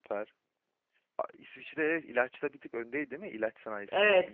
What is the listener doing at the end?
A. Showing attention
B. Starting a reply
B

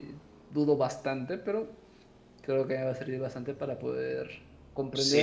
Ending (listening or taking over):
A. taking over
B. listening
A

